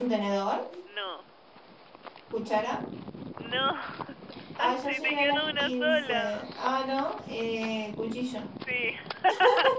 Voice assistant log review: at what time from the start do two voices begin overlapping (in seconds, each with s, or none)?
4.6 s